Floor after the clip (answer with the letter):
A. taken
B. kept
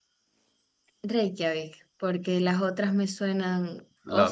B